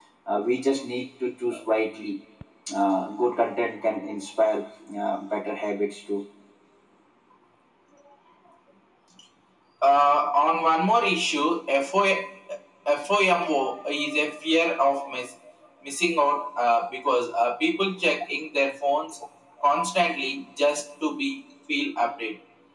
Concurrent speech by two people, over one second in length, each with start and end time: none

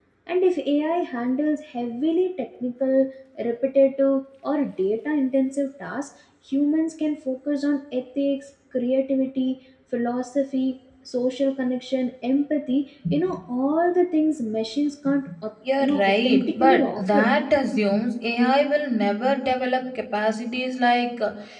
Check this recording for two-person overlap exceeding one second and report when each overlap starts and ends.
15.8-17.2

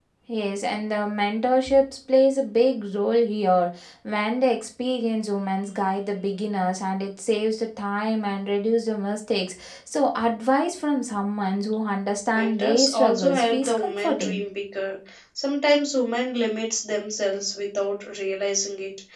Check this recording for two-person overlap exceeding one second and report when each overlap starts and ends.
12.3-14.4

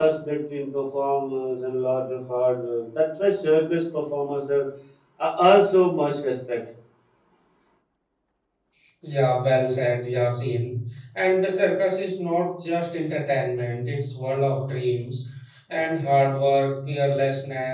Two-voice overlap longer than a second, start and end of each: none

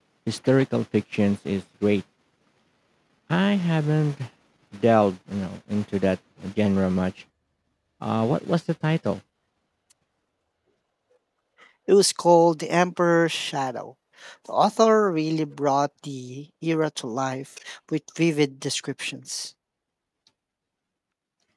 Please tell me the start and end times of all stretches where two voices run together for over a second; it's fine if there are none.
none

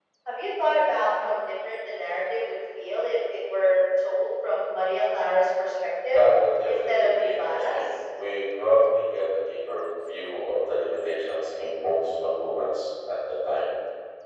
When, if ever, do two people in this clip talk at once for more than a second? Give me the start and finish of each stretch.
6.7-7.9

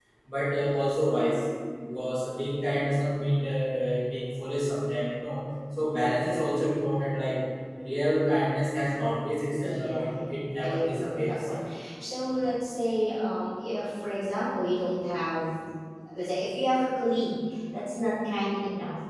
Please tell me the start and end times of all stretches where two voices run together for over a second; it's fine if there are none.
9.6-11.5

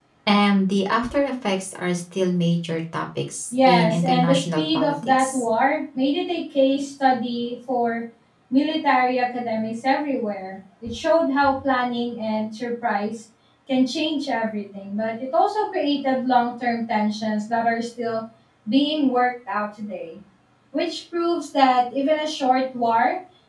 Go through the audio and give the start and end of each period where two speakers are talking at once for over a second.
3.6-5.4

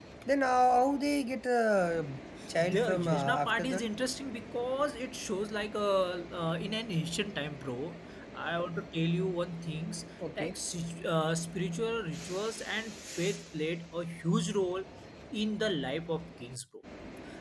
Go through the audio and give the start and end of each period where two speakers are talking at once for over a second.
2.6-3.8

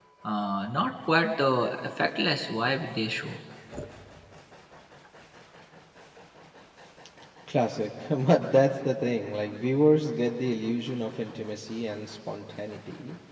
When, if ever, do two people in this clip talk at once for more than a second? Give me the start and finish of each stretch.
none

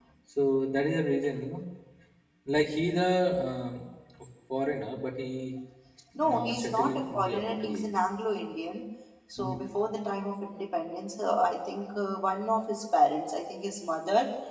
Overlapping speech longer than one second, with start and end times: 6.2-7.8

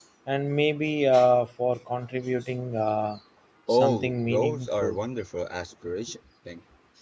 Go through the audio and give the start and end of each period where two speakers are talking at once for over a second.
3.7-5.0

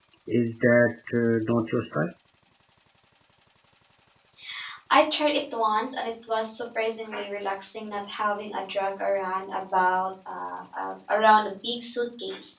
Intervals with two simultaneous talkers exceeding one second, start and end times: none

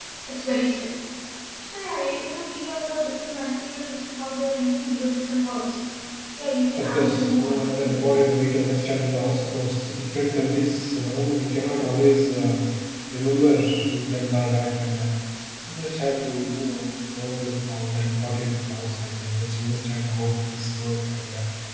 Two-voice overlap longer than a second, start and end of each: 6.8-8.1

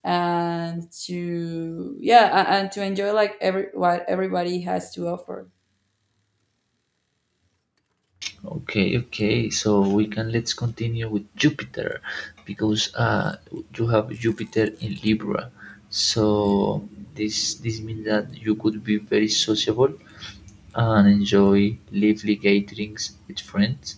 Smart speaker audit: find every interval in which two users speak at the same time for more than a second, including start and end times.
none

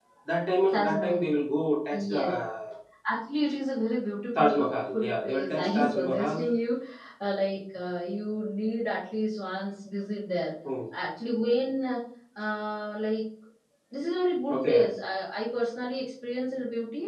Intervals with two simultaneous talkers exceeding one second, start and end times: 4.3-6.5

